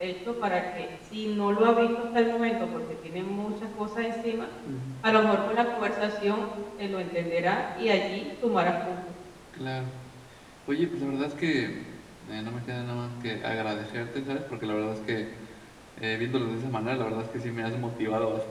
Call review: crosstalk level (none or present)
none